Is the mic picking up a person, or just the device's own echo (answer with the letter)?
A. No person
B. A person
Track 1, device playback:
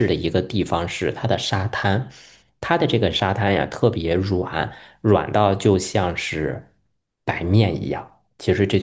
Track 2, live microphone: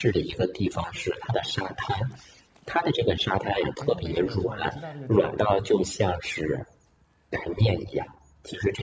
B